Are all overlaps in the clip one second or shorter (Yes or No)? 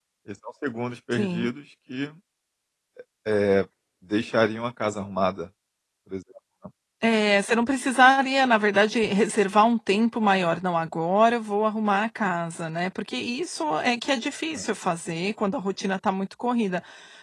Yes